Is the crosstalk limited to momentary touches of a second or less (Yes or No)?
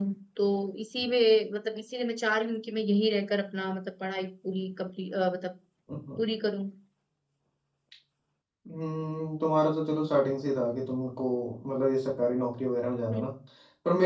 Yes